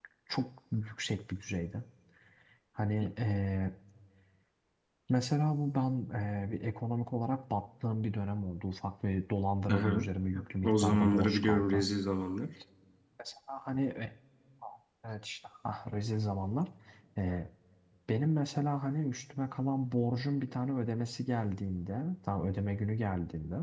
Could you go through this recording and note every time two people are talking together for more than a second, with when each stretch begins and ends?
10.6-11.8

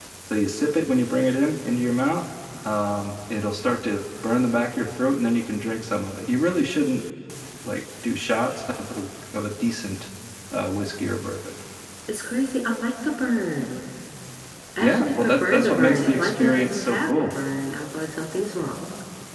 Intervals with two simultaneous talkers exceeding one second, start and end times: 14.8-17.3

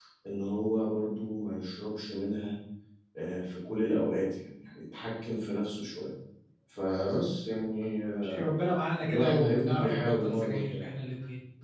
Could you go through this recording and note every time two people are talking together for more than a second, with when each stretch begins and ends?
9.0-10.8

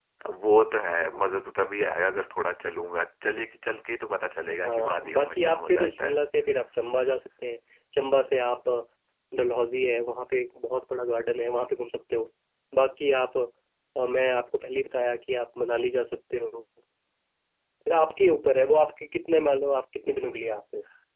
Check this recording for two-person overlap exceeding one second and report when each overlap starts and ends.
4.6-6.2

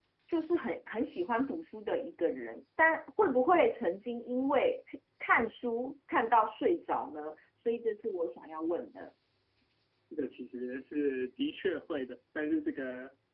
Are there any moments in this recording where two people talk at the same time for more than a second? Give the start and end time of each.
none

